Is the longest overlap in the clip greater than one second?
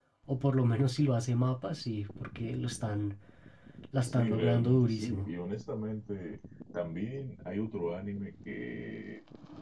Yes, from 4.0 s

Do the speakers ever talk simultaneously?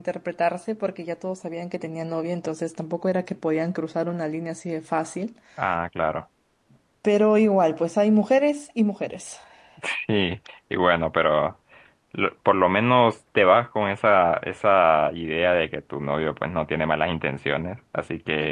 No

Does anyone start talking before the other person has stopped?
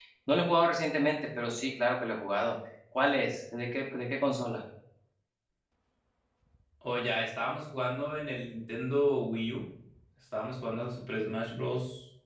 No

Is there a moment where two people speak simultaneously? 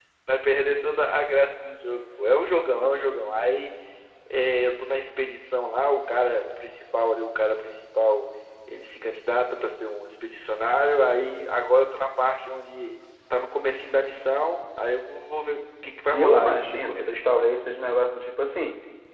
Yes, from 16.1 s

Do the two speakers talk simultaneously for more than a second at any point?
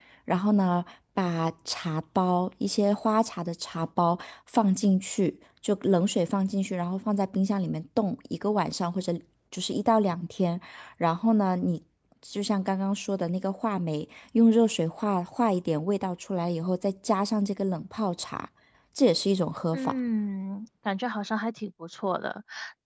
No

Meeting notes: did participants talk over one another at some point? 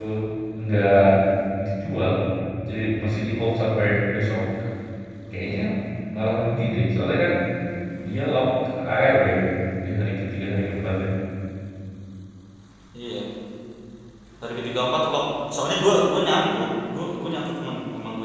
No

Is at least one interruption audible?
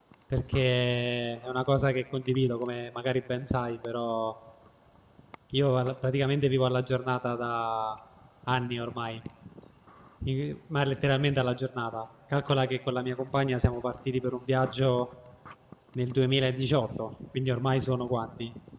No

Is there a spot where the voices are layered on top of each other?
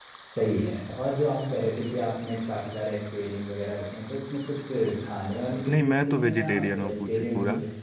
Yes, from 5.6 s

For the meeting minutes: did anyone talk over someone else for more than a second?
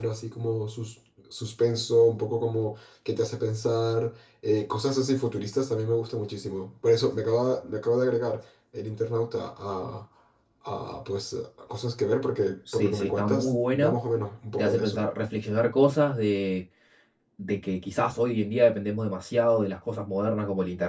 Yes, from 12.7 s

